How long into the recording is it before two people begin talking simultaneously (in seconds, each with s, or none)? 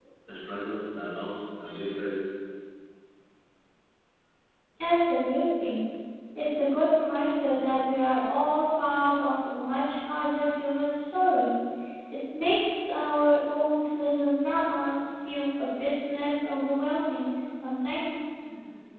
none